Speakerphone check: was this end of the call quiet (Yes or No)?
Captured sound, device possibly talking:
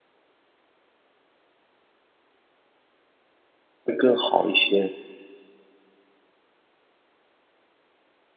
No